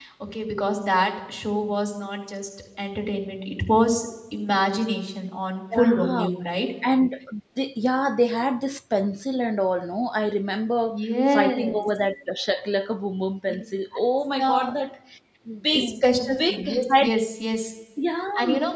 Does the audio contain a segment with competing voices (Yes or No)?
Yes